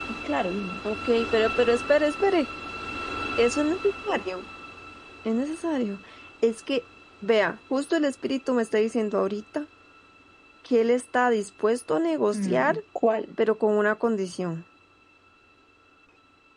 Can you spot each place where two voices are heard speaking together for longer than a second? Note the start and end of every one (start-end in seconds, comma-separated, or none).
none